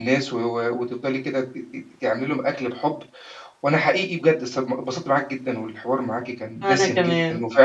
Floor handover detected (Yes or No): No